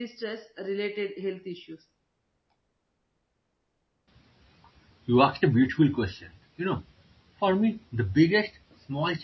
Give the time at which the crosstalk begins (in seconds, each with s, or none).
none